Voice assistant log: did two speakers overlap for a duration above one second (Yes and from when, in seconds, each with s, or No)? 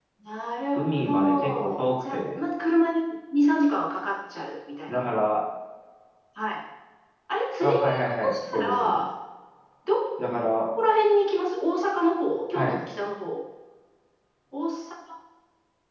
Yes, from 0.8 s